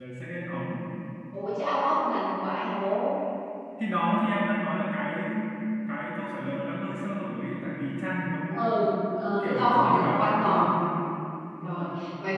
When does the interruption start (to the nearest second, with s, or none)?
9 s